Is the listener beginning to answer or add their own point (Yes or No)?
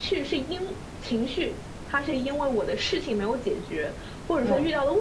No